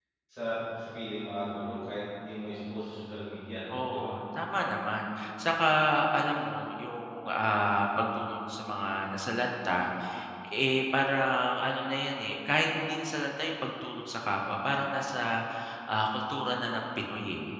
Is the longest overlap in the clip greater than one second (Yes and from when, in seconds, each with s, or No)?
No